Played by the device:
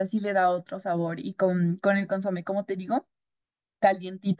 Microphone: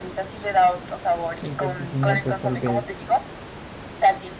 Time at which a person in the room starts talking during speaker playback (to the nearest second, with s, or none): 1 s